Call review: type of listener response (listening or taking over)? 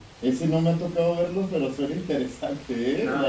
taking over